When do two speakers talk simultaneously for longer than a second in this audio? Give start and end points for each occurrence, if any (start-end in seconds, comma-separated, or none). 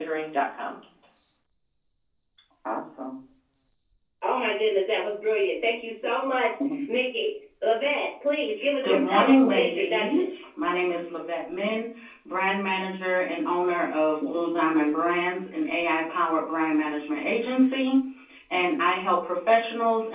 8.8-10.3